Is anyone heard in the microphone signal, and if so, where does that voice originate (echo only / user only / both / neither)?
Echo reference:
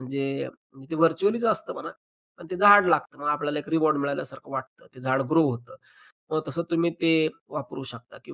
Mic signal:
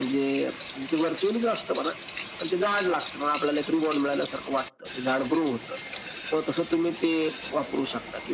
echo only